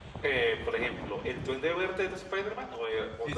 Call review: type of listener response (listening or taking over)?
taking over